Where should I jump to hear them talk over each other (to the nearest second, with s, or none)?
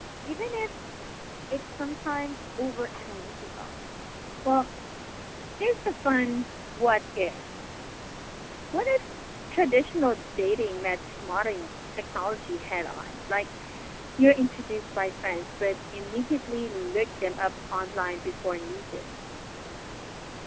none